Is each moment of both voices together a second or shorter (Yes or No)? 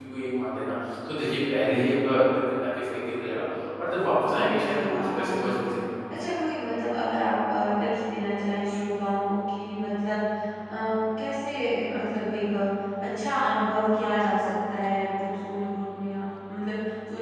No